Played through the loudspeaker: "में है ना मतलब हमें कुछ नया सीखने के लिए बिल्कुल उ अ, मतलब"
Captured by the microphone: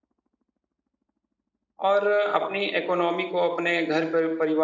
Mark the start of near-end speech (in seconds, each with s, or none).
1.9 s